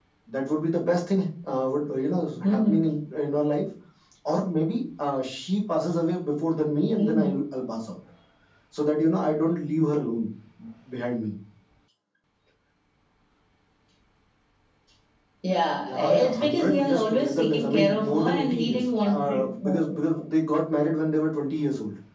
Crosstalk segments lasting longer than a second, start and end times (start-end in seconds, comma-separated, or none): 15.9-19.8